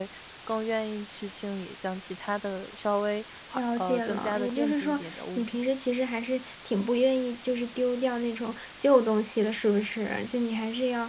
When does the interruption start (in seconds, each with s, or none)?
3.5 s